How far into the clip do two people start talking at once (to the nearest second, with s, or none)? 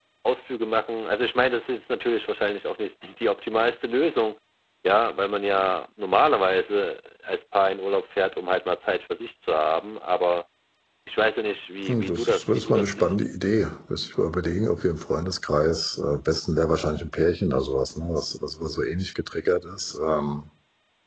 12 s